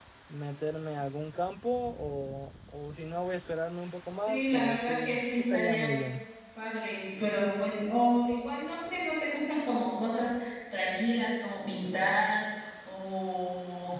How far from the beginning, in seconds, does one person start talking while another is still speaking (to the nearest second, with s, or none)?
4 s